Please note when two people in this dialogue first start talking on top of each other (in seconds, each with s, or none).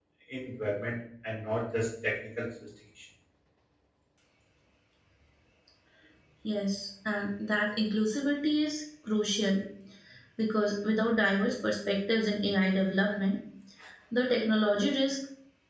none